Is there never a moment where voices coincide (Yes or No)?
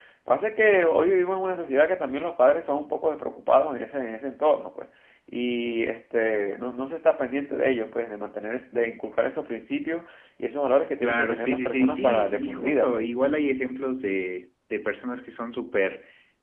No